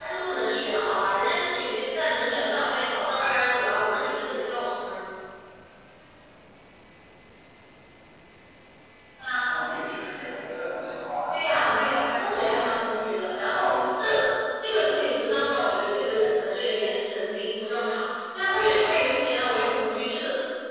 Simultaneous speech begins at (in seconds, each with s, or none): 11.3 s